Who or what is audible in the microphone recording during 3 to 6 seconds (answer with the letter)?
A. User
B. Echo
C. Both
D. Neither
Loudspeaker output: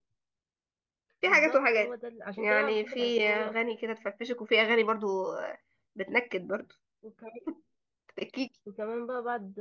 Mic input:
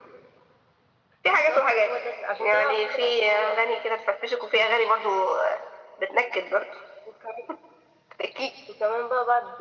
B